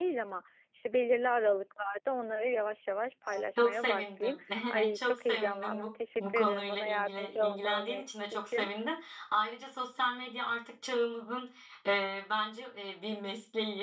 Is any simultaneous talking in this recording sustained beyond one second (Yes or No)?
Yes